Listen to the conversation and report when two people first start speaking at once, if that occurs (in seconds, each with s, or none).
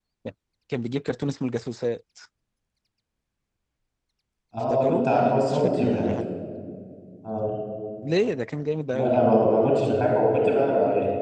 4.7 s